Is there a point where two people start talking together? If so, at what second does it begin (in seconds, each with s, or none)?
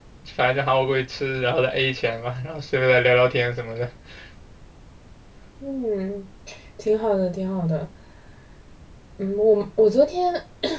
none